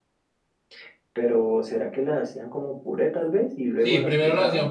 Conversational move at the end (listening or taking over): taking over